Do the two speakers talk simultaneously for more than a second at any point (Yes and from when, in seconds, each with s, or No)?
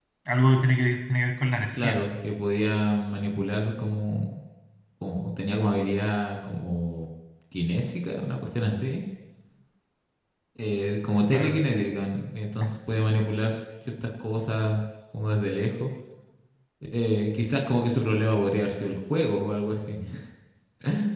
No